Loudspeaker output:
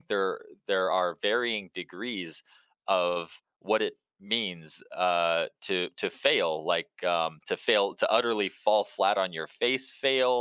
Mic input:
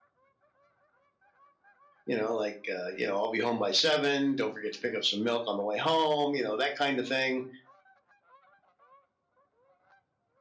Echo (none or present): none